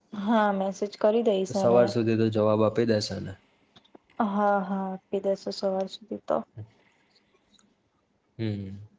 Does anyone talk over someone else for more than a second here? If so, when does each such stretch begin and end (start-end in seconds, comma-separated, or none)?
none